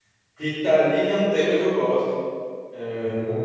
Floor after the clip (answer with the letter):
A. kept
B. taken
B